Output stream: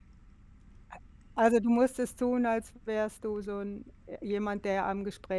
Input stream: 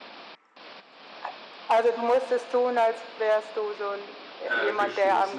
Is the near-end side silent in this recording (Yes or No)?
No